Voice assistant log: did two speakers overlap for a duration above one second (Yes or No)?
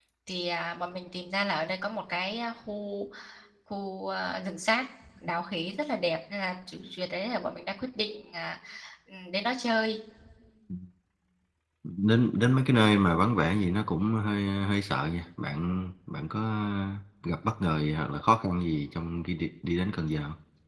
No